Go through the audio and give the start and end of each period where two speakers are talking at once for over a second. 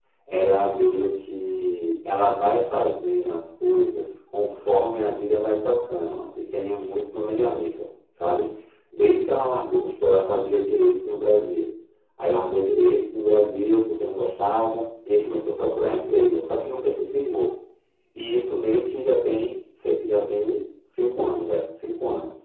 none

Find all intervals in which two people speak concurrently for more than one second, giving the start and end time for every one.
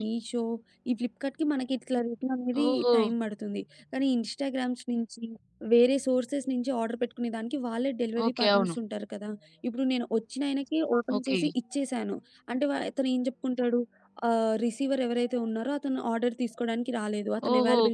none

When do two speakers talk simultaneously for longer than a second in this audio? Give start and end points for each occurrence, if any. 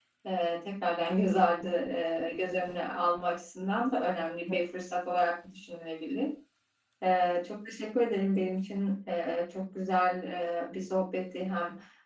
none

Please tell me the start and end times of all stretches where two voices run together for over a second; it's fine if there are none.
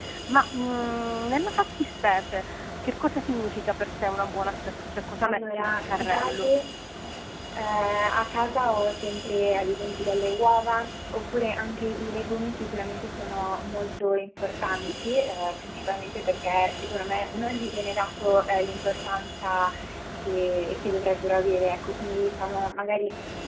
5.2-6.5

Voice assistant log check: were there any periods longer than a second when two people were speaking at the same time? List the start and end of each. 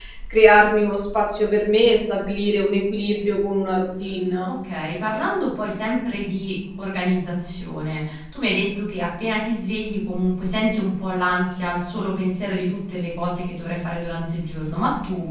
none

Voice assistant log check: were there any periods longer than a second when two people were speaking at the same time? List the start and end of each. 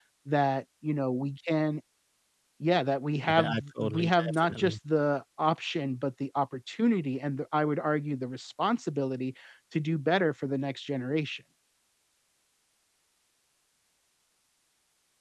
3.3-4.8

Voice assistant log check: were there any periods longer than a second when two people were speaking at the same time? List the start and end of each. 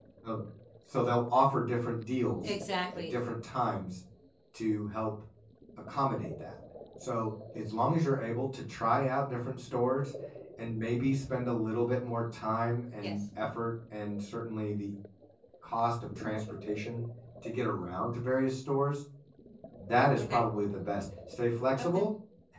none

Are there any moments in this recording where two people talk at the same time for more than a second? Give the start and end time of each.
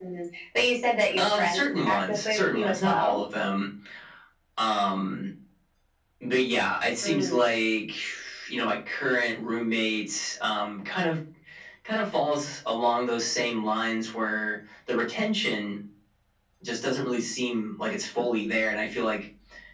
1.2-3.2

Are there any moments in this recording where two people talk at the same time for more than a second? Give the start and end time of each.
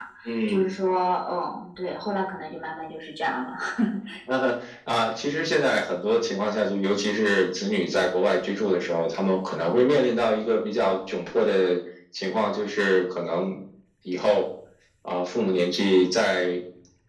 none

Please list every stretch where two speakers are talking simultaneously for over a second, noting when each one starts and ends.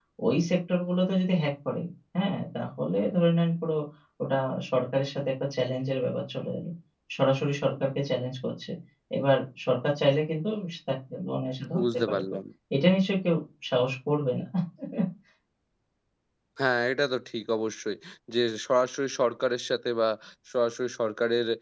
none

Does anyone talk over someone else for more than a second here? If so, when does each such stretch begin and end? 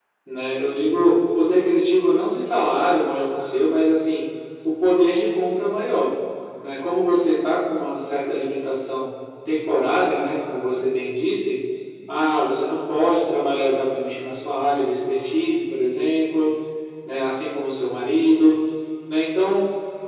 none

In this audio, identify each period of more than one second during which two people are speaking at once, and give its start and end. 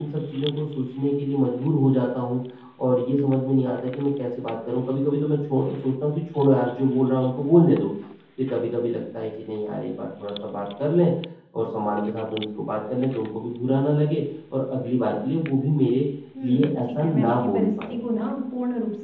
16.4-18.0

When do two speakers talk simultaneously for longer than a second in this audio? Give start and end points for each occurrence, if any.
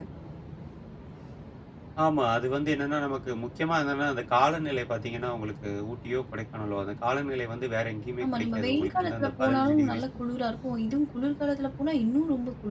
8.2-10.0

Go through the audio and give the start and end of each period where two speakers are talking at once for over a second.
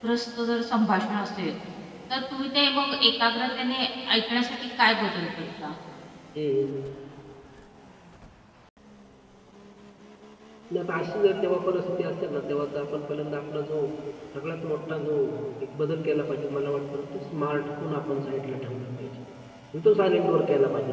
none

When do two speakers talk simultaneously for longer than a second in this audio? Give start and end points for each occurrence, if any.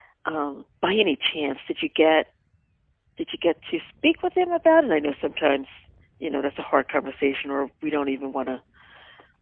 none

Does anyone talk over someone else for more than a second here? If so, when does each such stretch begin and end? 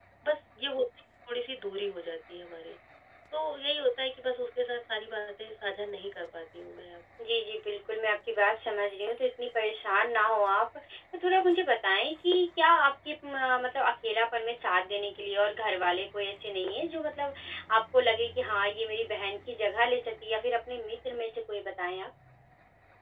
none

